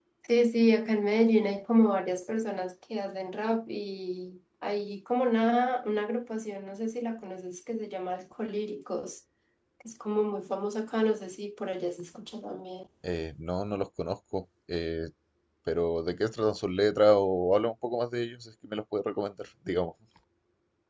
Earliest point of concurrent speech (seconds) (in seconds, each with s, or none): none